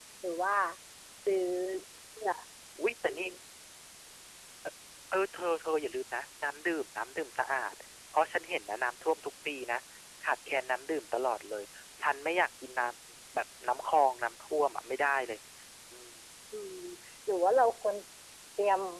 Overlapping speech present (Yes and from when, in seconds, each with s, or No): No